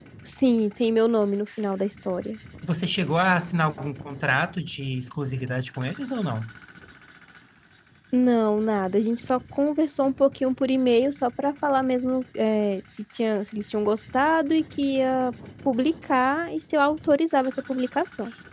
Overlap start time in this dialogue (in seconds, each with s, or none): none